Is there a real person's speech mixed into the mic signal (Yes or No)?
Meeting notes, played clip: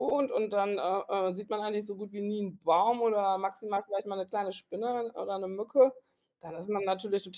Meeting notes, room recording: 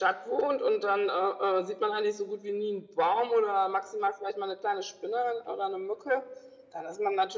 No